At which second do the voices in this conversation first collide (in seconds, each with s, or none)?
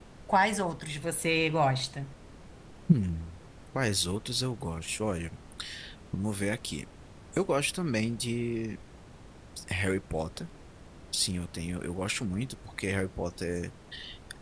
none